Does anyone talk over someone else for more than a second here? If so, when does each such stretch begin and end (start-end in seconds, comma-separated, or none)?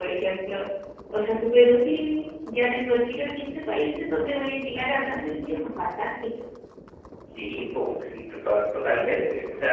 none